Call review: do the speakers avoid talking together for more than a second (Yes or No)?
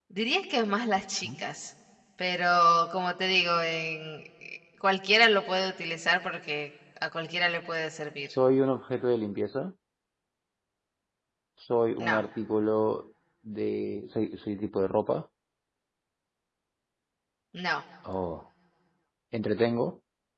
Yes